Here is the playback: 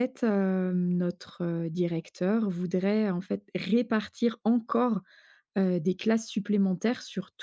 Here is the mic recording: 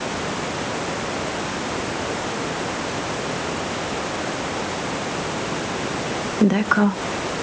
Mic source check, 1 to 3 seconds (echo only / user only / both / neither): neither